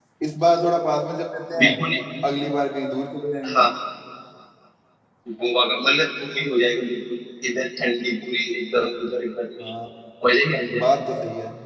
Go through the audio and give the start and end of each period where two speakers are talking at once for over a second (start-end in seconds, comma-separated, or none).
none